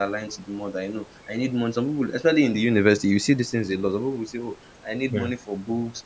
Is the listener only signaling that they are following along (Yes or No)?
Yes